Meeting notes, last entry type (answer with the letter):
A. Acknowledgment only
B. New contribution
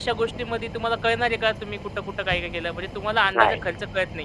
A